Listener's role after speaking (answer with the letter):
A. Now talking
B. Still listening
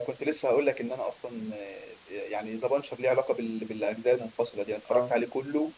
B